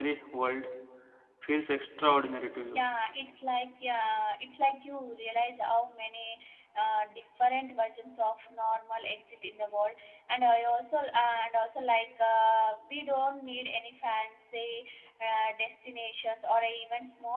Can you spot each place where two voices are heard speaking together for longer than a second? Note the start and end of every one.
none

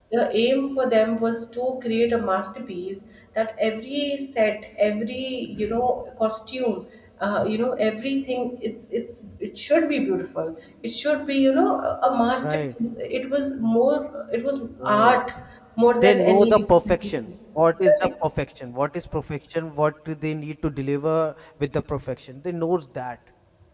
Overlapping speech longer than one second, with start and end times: 16.0-17.3

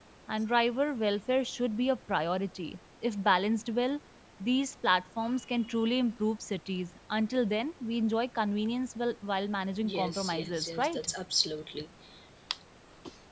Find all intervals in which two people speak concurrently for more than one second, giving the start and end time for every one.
9.8-11.1

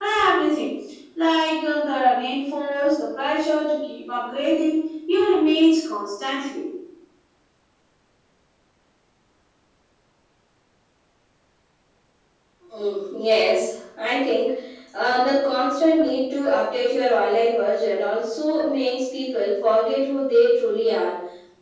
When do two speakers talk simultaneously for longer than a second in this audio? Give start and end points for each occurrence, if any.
none

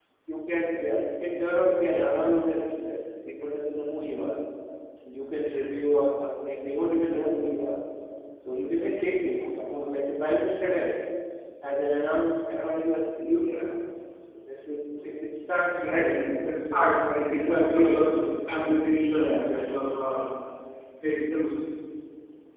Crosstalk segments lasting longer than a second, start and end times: 16.7-18.0

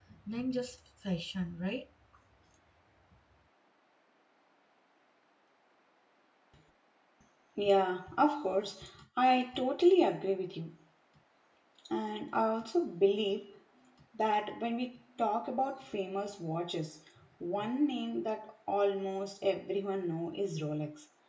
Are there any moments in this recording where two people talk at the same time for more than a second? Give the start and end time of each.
none

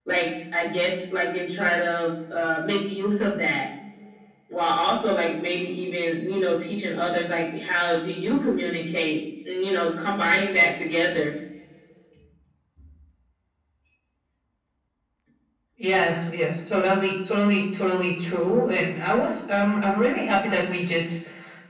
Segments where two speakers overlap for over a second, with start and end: none

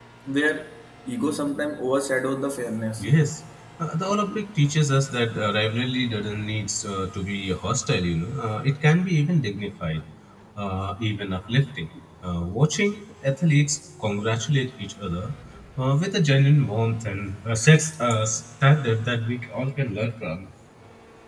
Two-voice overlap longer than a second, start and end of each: none

